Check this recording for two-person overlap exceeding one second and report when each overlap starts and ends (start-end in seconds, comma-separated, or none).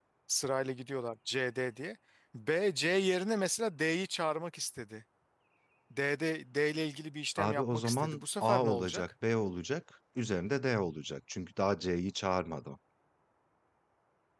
7.4-9.0